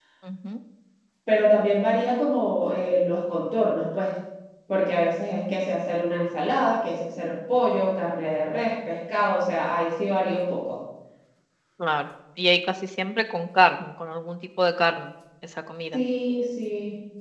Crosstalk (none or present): none